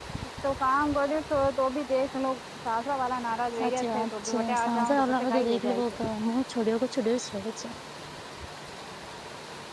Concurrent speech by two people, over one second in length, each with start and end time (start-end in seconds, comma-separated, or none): 3.6-5.8